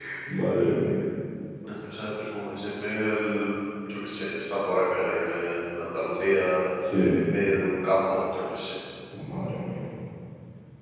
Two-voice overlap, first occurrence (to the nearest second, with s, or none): none